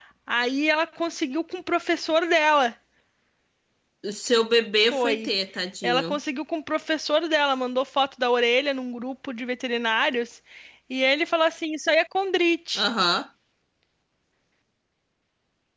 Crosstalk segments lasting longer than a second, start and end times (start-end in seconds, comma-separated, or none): none